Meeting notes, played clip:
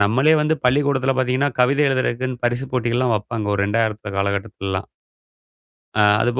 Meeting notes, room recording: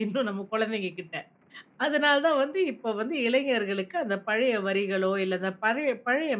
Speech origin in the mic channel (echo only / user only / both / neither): user only